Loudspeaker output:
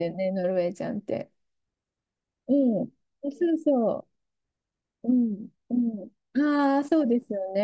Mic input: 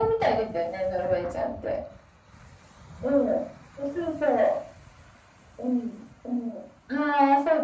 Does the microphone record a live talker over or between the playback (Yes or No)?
No